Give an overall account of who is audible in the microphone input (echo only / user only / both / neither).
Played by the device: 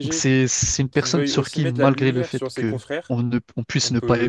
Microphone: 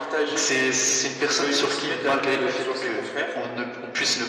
echo only